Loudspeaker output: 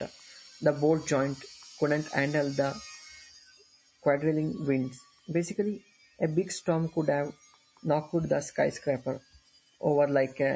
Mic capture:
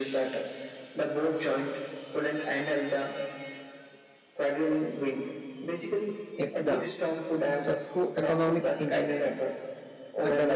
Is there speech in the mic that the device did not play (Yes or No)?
Yes